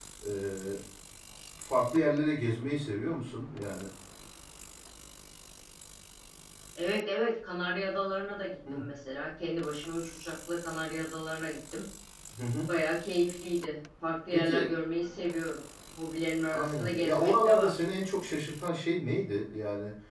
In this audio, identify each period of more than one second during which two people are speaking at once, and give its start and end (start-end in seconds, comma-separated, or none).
16.5-17.8